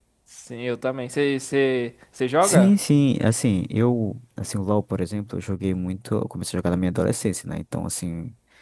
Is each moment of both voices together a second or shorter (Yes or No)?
Yes